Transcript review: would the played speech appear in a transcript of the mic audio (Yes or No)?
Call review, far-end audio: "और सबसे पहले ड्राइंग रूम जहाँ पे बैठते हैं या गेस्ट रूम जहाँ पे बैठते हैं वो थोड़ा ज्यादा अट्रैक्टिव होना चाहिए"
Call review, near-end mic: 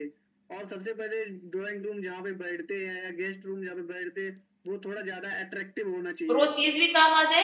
Yes